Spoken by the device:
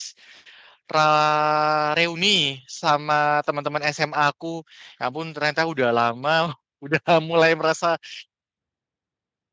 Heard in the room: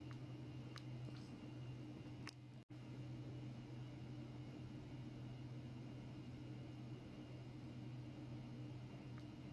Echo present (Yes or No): No